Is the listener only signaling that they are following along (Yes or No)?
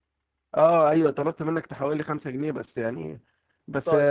Yes